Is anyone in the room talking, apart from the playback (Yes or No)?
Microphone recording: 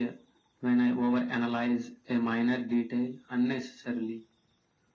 No